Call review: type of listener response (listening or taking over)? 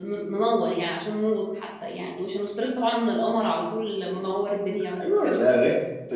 taking over